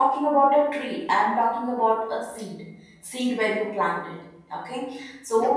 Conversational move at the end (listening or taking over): listening